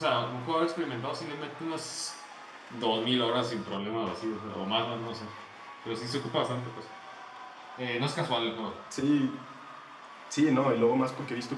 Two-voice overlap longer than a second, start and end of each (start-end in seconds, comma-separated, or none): none